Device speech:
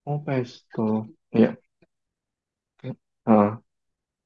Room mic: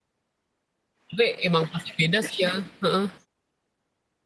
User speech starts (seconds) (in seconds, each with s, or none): 1.1 s